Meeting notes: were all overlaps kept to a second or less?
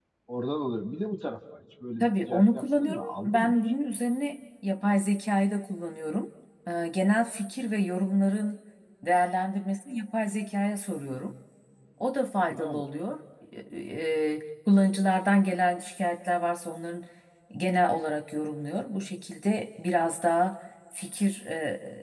No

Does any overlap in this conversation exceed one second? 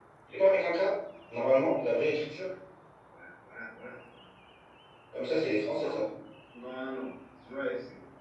No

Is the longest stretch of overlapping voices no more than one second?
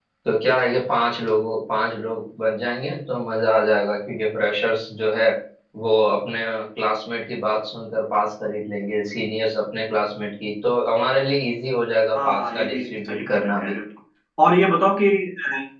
No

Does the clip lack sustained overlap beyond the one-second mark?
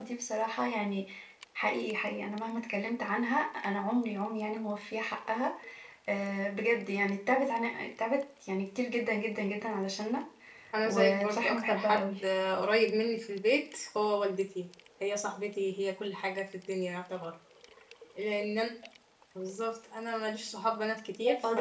No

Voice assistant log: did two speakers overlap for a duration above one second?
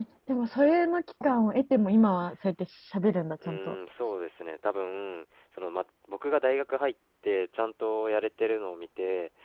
No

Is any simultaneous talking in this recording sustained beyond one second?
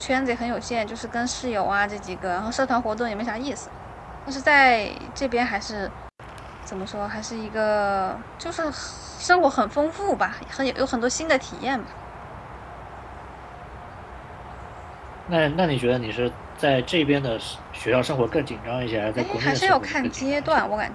Yes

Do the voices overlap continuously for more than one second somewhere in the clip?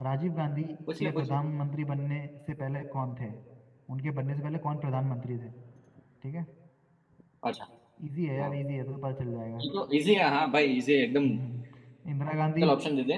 No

